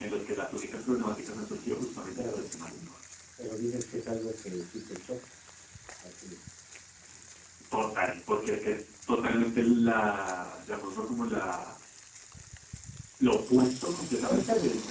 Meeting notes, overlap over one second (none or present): none